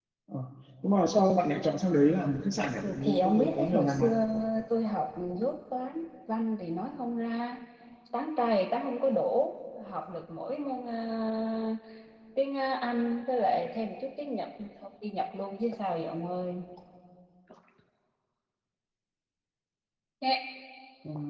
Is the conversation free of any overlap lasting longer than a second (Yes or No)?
No